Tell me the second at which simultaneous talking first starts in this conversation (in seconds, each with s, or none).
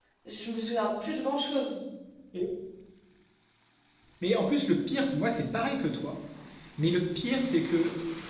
none